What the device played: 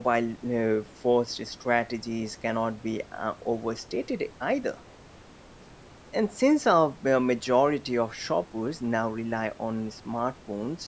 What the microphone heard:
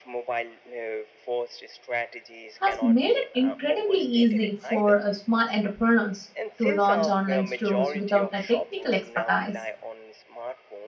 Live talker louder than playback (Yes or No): Yes